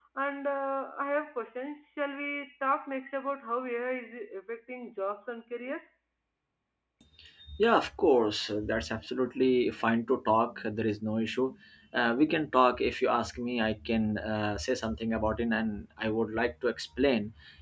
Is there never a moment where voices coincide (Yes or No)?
Yes